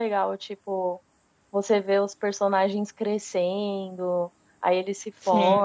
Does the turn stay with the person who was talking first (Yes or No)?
Yes